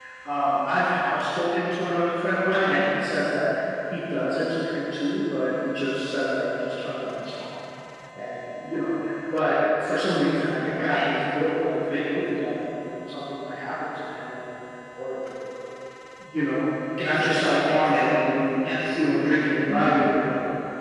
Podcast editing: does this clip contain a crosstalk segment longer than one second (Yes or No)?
Yes